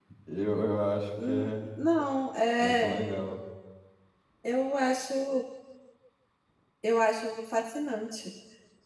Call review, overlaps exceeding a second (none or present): none